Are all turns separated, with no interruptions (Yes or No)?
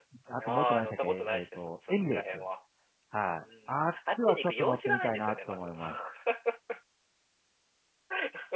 No